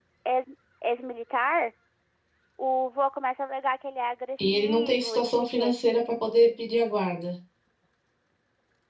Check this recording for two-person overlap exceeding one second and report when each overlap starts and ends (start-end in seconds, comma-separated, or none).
4.5-5.7